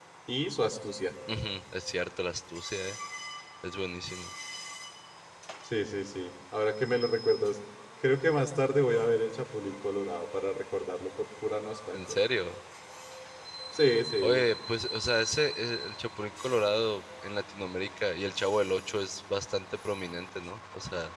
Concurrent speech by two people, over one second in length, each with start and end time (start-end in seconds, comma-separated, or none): none